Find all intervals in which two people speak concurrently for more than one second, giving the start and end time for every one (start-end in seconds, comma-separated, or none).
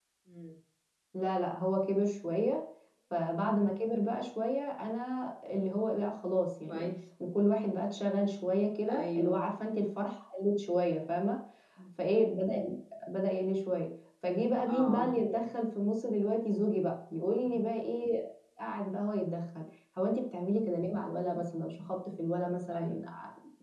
none